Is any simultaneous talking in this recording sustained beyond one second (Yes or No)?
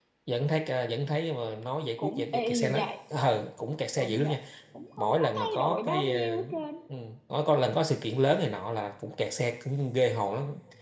Yes